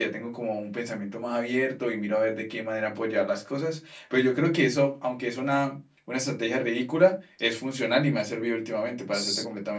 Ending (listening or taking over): taking over